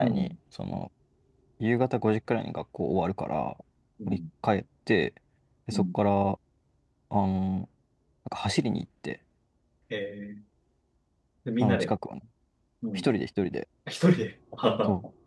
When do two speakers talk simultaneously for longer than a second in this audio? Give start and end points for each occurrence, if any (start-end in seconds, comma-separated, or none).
none